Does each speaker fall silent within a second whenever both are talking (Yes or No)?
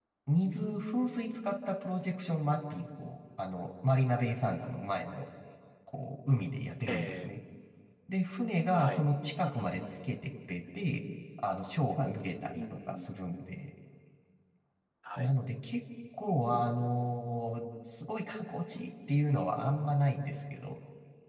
Yes